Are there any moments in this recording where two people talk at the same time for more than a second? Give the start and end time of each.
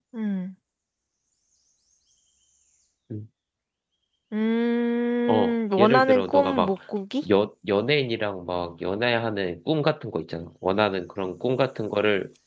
5.3-6.8

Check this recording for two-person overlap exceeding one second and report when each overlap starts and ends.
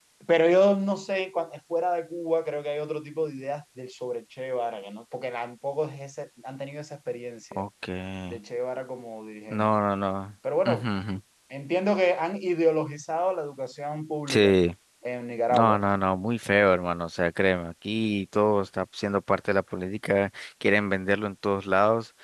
none

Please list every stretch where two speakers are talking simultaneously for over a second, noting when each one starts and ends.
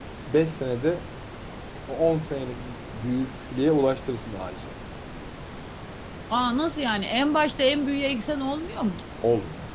none

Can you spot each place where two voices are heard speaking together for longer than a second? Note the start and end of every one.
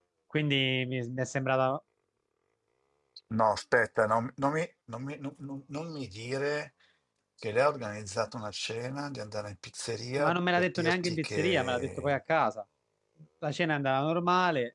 10.2-12.2

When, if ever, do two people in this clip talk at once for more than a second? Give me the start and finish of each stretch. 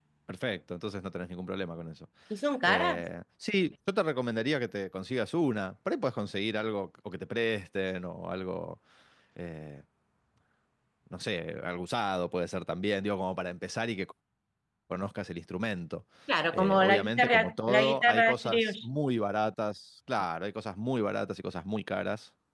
16.5-18.7

